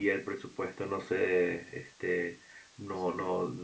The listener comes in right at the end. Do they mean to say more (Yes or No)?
No